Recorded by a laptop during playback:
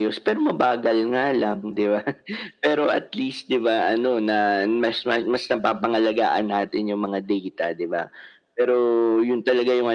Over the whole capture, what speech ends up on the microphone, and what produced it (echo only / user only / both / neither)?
echo only